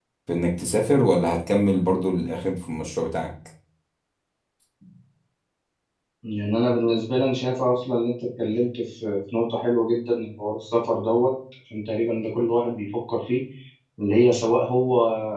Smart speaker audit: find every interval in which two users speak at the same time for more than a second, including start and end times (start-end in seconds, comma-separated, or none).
none